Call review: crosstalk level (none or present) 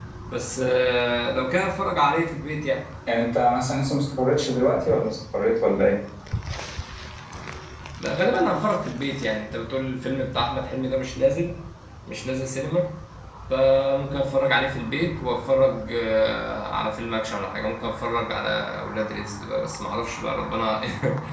none